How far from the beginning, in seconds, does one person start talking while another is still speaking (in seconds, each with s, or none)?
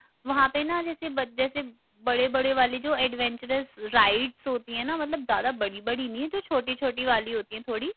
none